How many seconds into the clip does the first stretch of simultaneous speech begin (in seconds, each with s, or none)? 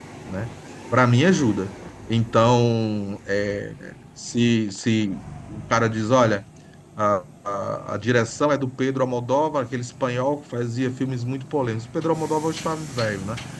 none